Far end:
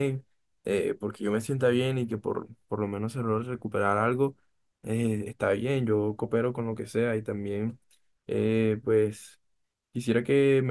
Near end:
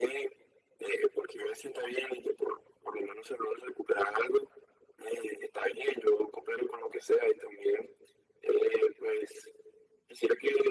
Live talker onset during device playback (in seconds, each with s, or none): none